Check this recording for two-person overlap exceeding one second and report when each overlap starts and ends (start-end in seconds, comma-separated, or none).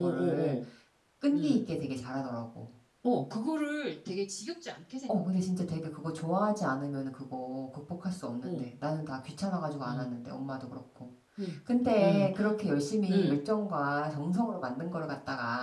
none